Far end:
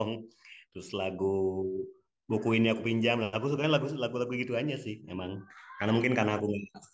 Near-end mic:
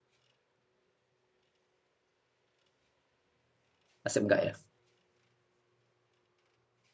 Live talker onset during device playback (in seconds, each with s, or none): 4.0 s